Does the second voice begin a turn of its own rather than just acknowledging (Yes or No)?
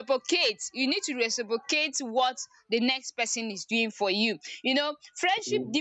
No